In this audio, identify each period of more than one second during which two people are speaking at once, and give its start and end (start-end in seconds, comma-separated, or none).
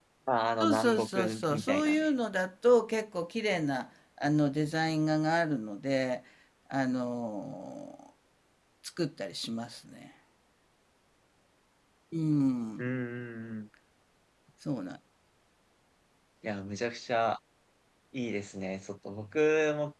0.6-2.1